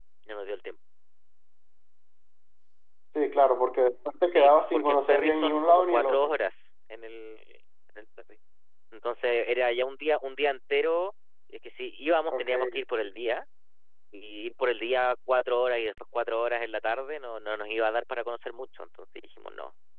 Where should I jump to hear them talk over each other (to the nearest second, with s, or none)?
4 s